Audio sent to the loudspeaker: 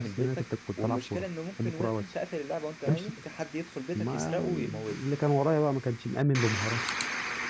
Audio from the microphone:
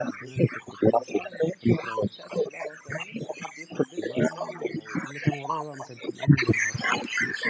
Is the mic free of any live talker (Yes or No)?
Yes